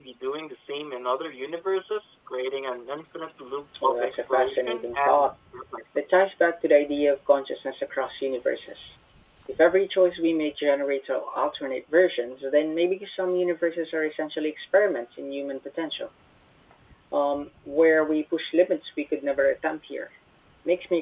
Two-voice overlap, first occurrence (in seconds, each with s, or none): 3.7 s